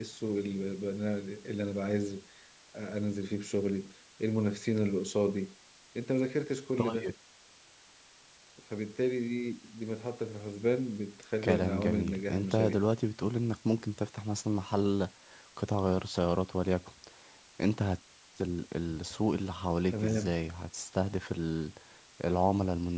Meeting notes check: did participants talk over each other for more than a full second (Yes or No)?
Yes